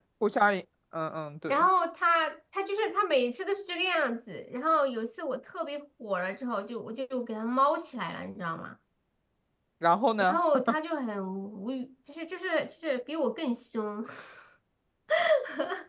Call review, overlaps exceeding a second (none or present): none